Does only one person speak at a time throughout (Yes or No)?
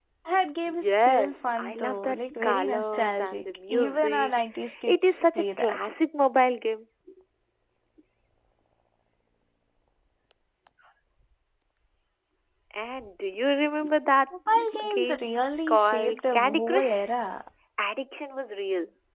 No